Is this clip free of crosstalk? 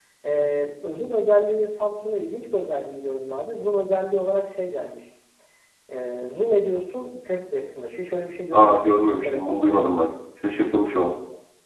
No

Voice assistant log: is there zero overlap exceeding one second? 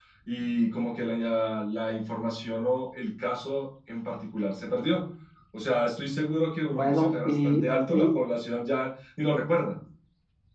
No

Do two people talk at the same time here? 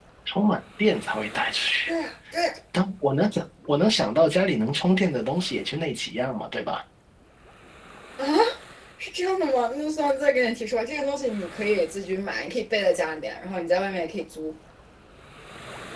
No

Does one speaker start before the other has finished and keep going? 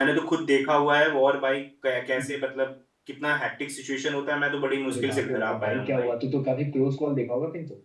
Yes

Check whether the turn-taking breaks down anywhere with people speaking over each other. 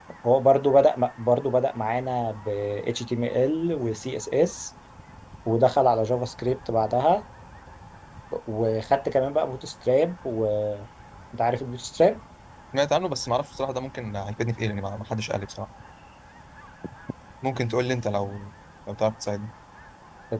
No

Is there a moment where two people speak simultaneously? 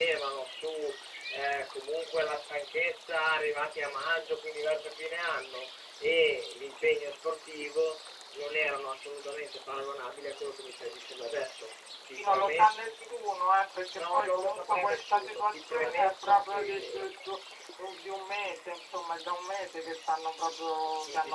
Yes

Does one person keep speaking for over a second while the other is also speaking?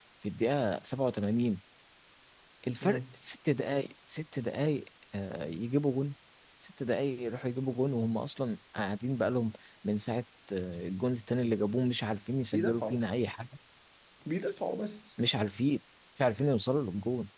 No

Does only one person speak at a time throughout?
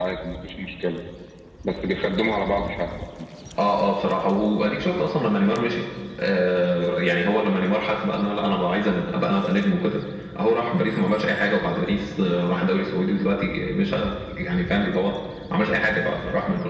Yes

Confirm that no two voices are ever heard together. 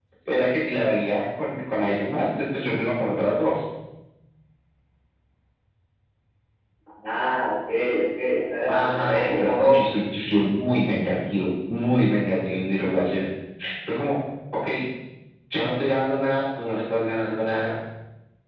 No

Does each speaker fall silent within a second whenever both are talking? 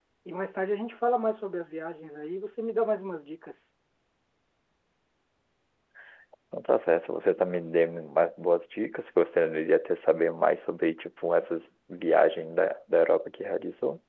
Yes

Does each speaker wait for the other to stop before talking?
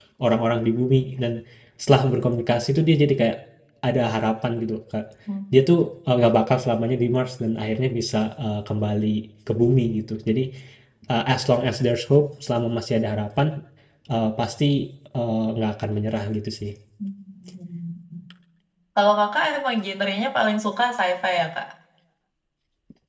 Yes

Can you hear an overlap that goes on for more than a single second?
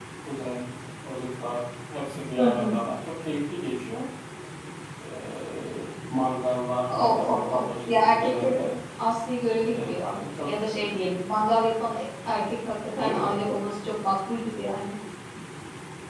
Yes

